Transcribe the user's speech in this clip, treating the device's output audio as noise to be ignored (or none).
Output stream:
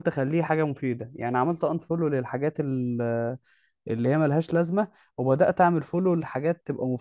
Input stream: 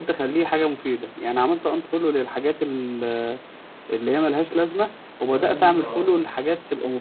فادوني الصراحه